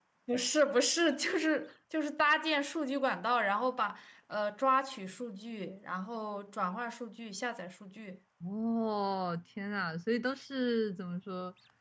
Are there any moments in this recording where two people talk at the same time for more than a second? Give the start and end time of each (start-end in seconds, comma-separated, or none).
none